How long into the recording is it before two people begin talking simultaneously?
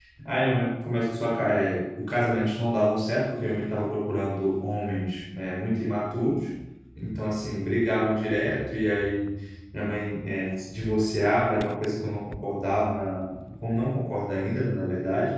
none

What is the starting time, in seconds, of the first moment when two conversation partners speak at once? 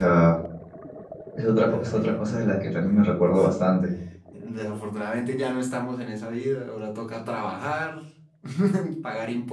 1.7 s

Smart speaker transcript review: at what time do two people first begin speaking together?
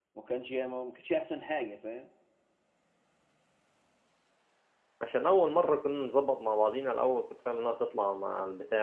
none

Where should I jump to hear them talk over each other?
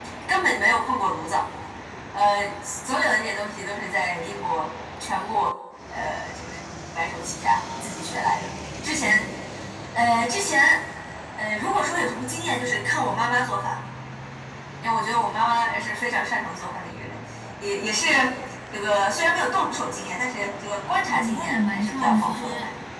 21.1 s

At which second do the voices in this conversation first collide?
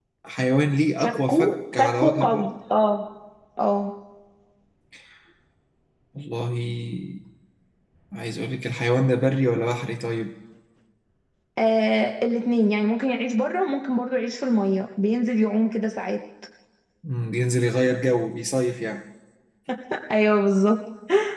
1.0 s

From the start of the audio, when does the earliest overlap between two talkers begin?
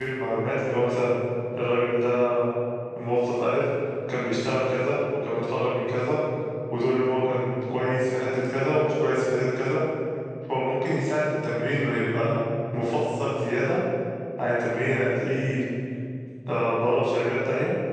none

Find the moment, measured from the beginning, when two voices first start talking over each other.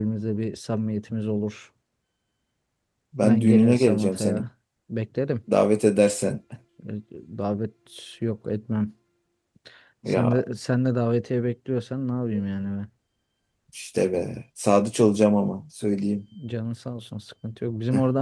3.2 s

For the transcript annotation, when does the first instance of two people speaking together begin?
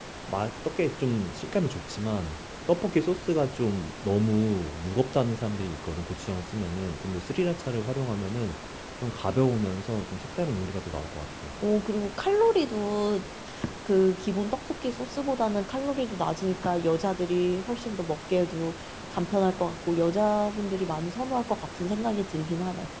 none

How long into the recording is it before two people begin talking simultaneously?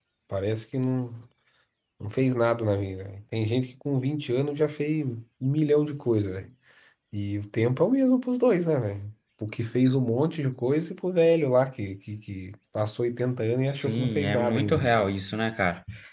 13.7 s

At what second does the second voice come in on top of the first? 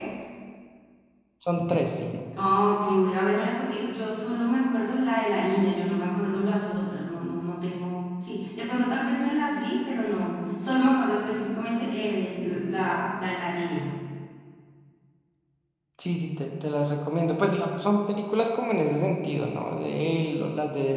none

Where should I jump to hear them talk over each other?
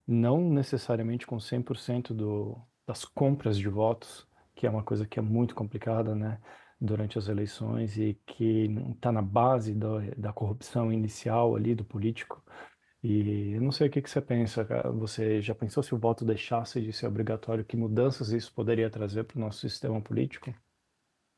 none

